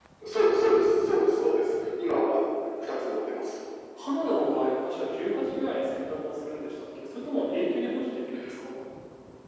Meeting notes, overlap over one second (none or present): none